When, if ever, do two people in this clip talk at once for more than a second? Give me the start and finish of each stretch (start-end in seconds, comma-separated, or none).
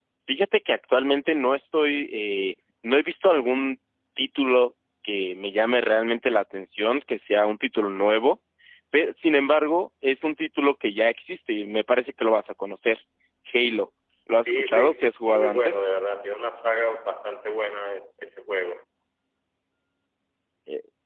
14.4-15.8